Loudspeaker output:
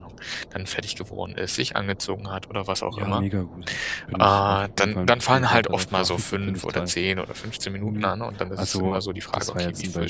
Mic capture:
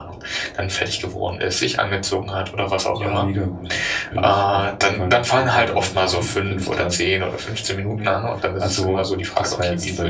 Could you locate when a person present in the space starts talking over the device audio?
none

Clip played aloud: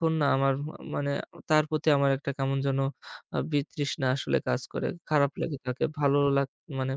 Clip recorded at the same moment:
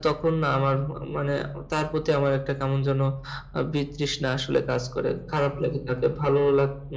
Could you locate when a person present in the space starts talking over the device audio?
none

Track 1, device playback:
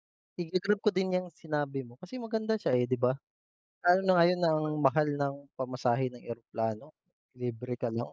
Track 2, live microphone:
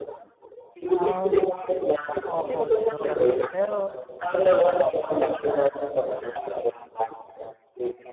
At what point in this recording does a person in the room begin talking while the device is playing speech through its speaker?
0.8 s

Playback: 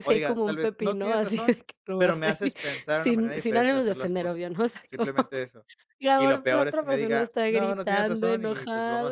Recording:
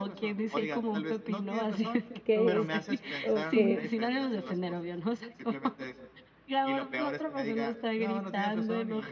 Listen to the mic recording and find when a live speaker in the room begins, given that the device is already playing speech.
2.1 s

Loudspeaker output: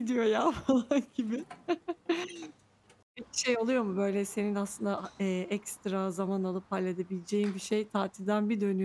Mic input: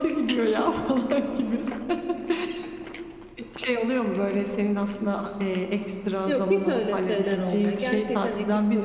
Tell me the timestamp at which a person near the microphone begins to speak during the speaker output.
6.2 s

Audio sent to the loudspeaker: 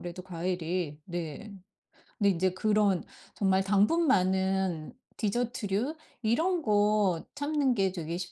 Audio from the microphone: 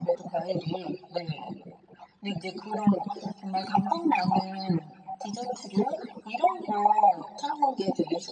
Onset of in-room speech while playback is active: none

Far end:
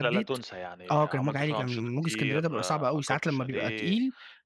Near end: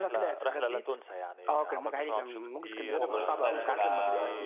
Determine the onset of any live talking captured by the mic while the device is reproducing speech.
2.9 s

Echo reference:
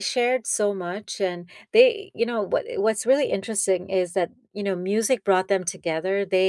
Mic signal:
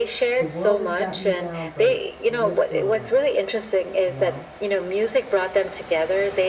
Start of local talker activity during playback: 0.4 s

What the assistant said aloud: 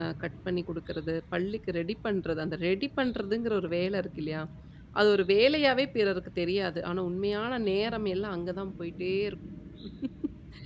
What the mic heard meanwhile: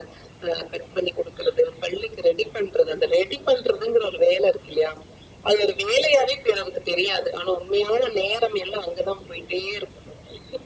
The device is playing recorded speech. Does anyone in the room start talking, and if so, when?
none

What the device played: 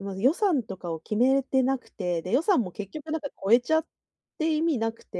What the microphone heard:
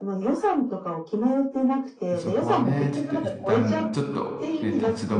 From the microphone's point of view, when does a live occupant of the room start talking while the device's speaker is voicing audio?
2.1 s

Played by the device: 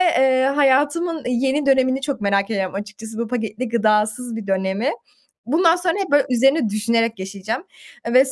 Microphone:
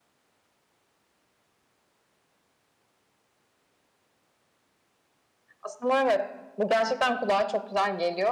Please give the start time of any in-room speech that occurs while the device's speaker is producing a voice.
5.6 s

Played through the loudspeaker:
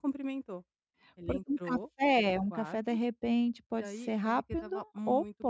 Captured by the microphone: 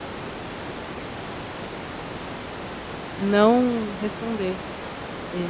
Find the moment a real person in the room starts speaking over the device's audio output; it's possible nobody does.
3.2 s

